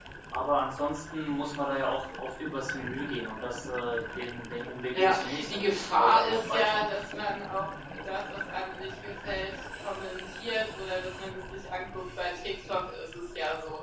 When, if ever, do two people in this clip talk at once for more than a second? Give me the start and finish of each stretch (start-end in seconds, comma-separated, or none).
4.9-6.8